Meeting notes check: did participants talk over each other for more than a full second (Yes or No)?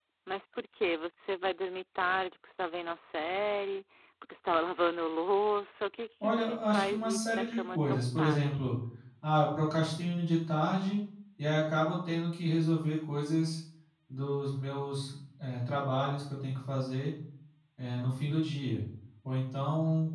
Yes